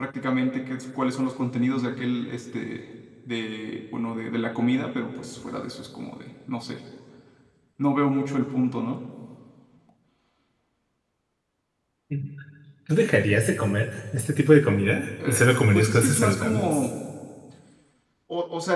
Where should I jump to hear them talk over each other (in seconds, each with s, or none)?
15.2 s